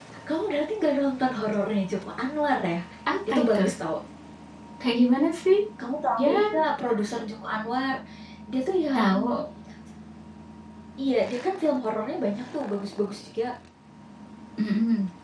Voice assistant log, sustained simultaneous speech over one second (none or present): none